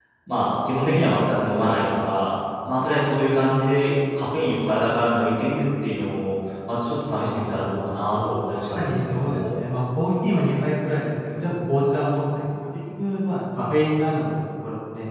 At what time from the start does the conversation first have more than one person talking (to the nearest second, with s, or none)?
7 s